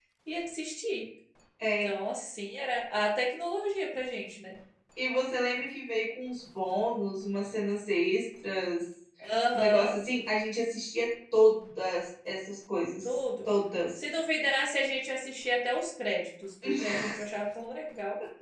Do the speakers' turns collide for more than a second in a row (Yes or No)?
No